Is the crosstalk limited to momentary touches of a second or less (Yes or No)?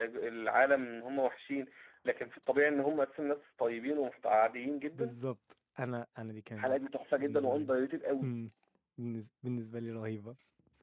Yes